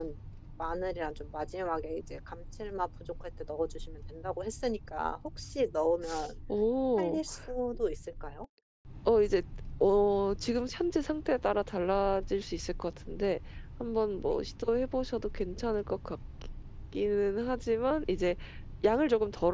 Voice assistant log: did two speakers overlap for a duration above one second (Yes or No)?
No